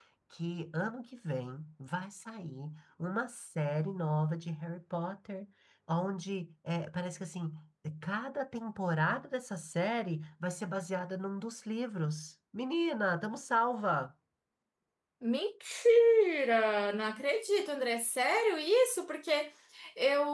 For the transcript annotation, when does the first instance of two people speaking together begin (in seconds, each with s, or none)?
none